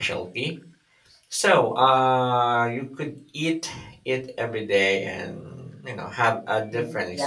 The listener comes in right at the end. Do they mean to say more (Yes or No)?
Yes